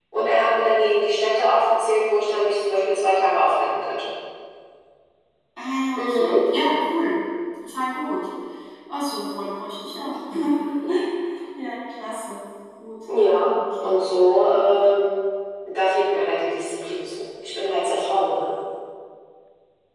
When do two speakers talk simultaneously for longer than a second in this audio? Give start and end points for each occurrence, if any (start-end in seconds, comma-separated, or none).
none